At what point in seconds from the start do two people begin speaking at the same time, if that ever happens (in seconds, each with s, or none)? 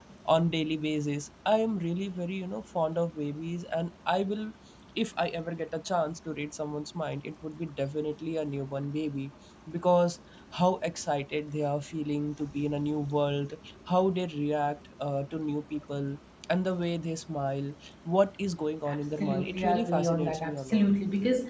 18.9 s